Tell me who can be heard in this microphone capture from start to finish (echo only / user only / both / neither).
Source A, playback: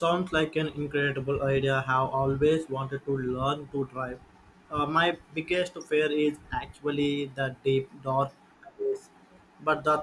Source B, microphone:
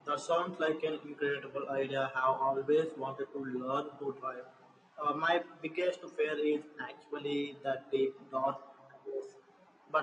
echo only